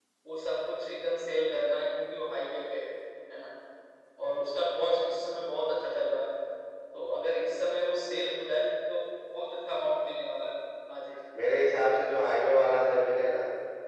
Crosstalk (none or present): none